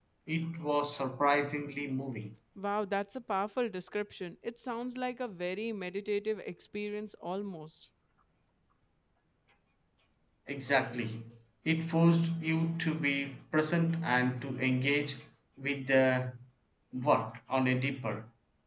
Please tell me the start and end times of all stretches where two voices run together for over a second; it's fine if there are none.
none

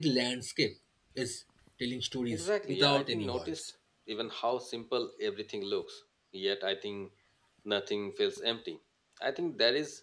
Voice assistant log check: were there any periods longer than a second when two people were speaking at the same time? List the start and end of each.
2.3-3.6

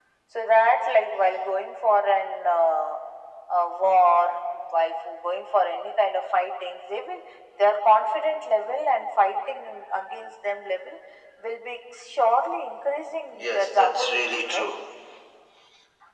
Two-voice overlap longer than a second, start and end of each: 13.3-14.8

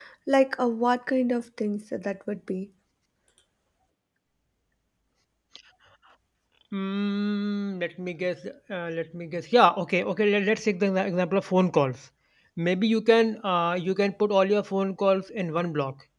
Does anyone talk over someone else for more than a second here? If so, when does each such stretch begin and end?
none

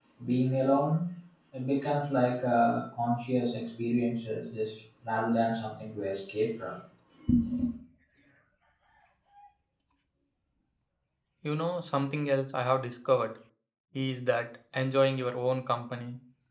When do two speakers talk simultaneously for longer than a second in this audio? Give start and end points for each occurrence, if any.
none

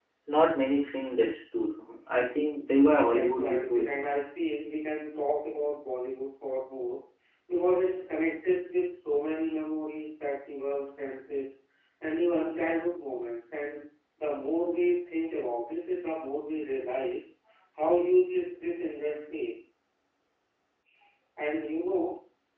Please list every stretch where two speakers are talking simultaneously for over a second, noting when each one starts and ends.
2.8-4.1

